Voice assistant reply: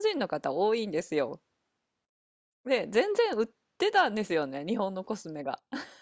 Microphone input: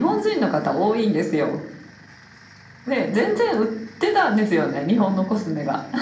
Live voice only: none

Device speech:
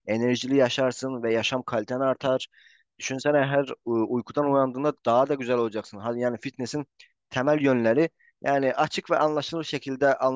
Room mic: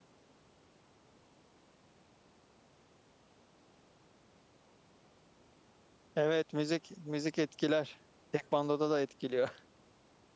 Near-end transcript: evet müzik müzik etkiler. Tekvandoda da etkiliyor.

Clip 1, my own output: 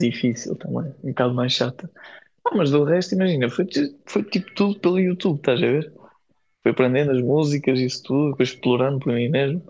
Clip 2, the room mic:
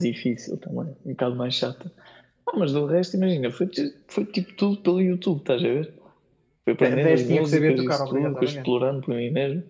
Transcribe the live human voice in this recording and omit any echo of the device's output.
De- Dez tinha que saber tocar, obrigatoriamente.

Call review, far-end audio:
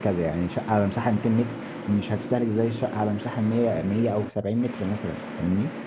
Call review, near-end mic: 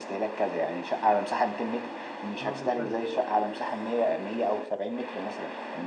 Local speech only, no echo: اه بالفعل

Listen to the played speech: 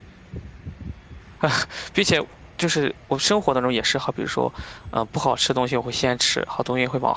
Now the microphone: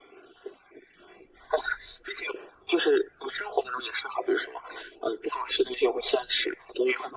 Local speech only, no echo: none

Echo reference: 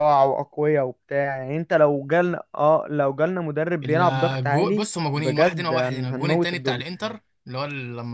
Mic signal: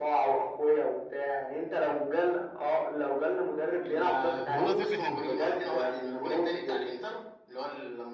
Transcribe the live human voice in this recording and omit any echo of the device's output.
طب والله فكره حلوه

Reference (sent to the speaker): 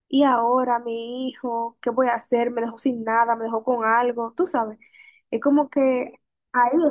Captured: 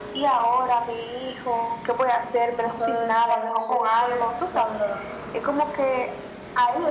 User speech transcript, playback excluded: Eso debe ser súper doloroso.

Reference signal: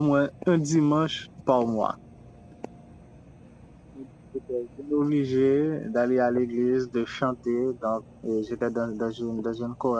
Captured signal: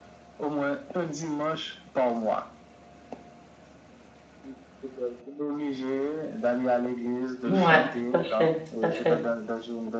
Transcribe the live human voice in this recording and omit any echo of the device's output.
Ouais, tout à fait, tout à fait.

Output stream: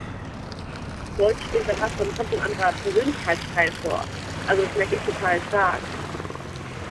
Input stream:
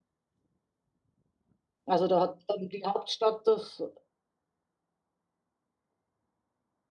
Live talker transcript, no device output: Also da hat dann die Hauptstadt das,

